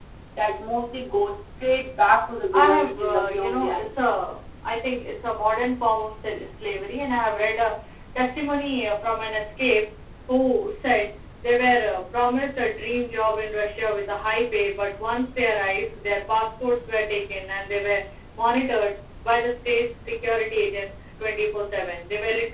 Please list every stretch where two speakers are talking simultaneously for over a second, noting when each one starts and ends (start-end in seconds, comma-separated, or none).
2.5-3.9